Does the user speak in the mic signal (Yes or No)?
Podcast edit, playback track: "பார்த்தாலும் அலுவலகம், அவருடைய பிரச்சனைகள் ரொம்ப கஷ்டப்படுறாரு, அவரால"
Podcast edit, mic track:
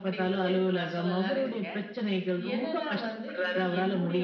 Yes